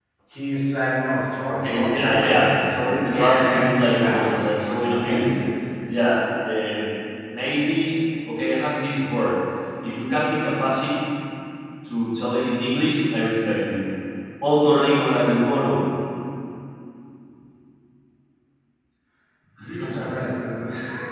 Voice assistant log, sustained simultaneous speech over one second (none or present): present